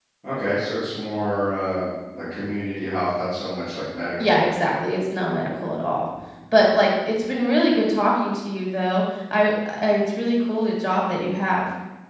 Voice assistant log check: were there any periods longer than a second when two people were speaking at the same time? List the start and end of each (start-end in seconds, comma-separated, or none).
none